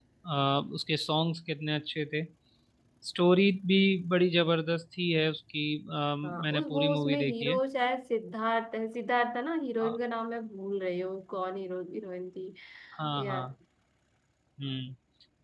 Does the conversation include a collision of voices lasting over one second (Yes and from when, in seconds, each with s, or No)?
Yes, from 6.2 s